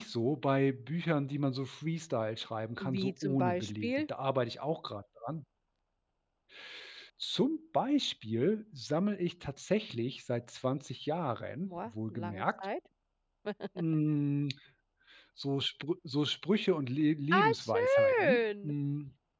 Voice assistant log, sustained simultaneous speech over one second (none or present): present